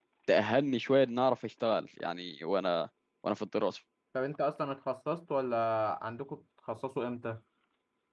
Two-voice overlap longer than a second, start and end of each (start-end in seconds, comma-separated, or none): none